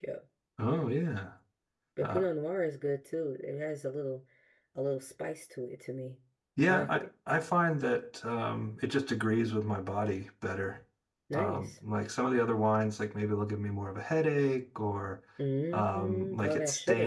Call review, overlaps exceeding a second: present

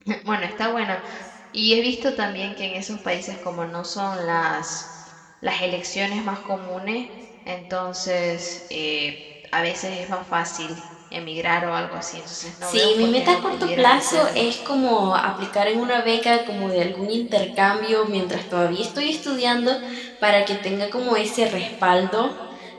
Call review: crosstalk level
present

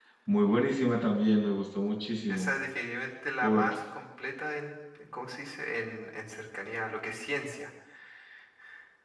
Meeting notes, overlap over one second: none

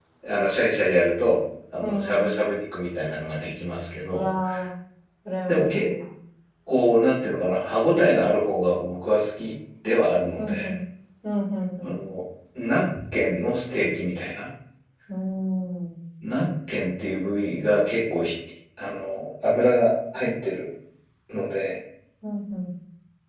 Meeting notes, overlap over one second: none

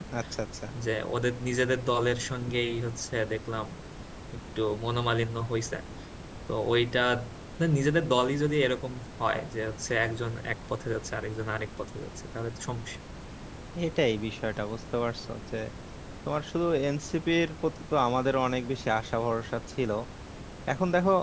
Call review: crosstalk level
none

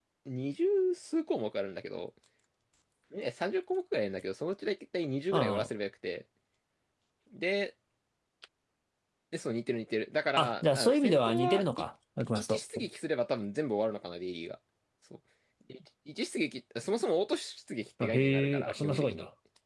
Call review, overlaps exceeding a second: present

